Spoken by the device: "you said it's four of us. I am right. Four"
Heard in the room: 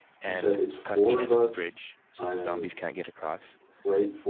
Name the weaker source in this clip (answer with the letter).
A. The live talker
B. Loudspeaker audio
A